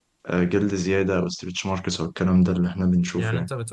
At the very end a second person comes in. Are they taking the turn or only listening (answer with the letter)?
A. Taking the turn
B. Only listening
A